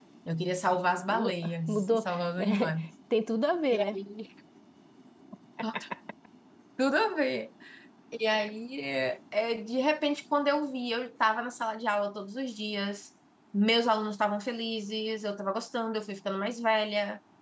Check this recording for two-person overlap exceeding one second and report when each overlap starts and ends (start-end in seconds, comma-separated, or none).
1.1-2.7